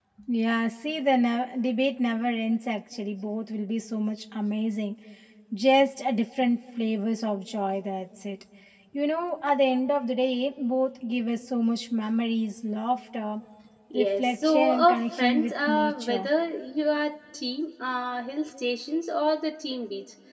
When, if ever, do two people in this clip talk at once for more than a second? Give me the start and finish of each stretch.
13.9-16.3

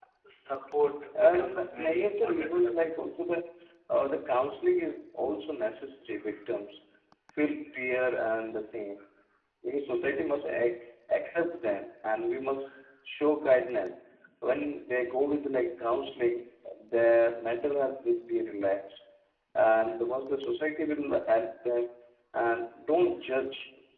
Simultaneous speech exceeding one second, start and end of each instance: 1.1-2.9

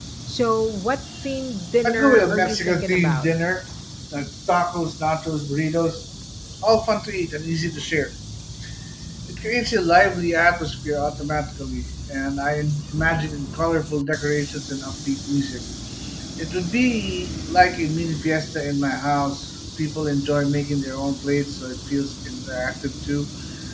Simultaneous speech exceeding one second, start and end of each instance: 1.9-3.3

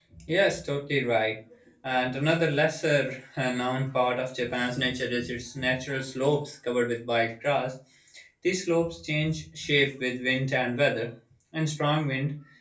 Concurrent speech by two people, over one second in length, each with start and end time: none

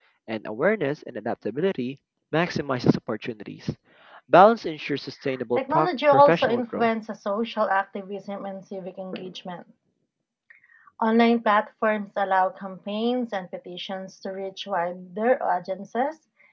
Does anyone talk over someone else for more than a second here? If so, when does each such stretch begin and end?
5.5-6.9

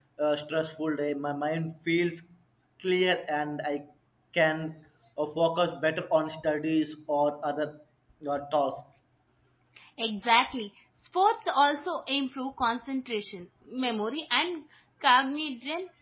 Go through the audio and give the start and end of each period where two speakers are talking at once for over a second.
none

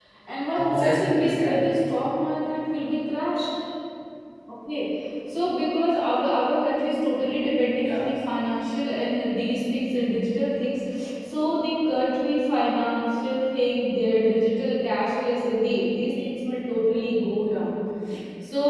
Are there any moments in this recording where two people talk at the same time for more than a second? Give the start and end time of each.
0.5-1.8

